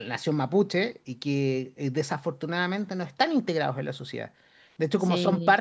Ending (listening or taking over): listening